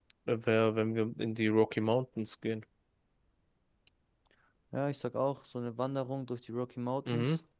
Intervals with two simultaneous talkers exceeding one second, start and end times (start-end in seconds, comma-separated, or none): none